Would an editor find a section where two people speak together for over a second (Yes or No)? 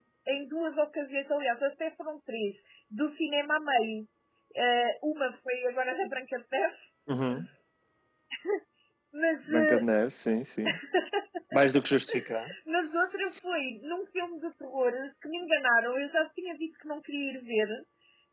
No